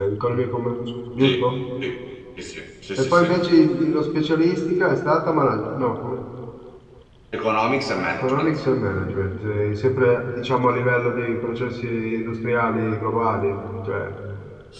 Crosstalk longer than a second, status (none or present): none